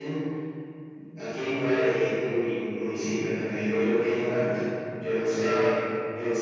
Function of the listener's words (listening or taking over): listening